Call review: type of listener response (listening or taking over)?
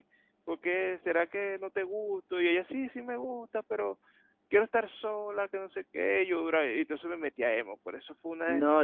taking over